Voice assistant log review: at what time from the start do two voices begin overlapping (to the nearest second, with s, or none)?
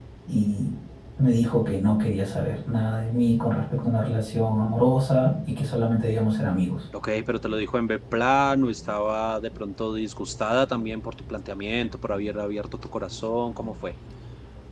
none